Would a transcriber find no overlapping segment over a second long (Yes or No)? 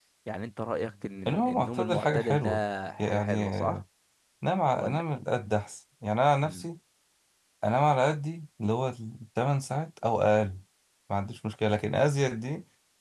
No